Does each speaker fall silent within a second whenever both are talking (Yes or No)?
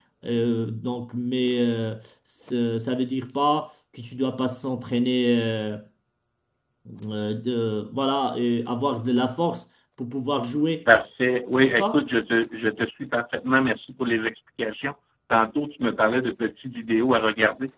Yes